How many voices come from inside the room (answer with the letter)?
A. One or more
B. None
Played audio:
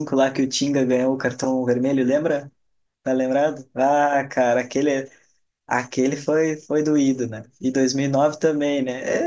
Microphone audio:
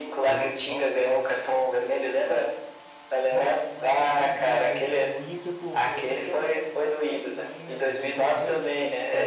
A